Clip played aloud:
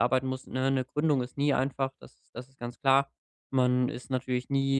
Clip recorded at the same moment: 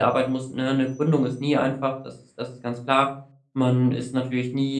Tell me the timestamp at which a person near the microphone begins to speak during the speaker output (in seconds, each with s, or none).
none